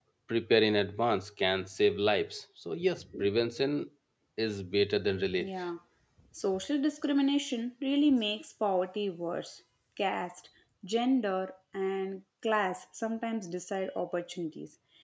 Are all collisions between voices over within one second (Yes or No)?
Yes